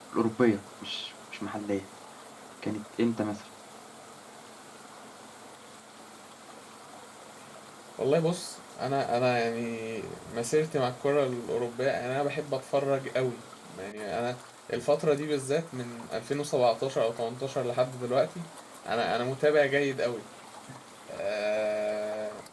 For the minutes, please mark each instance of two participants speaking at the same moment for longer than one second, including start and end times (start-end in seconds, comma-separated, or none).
none